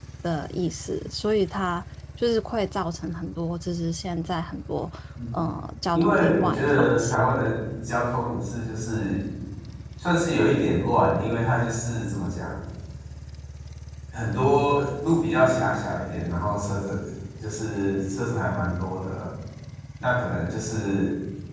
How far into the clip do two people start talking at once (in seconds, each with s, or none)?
6.0 s